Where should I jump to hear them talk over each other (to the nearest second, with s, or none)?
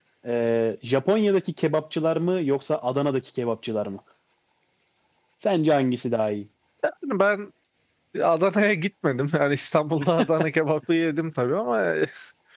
none